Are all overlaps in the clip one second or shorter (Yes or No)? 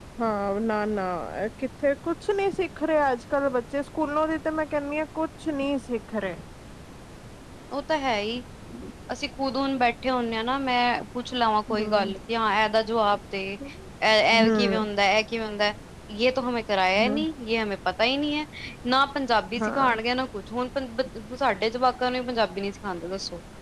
Yes